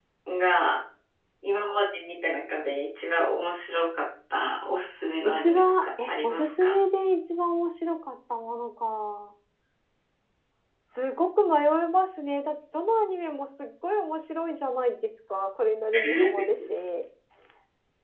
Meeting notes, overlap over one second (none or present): present